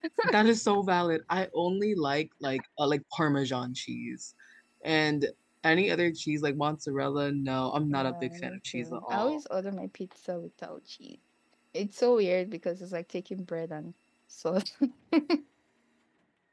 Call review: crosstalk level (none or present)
present